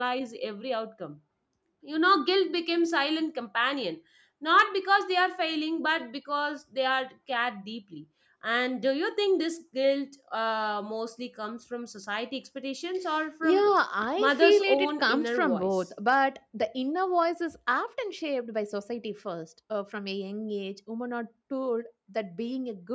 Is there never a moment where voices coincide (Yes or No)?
No